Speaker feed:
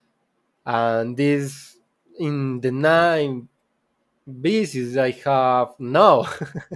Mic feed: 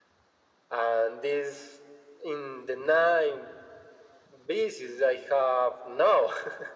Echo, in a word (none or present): present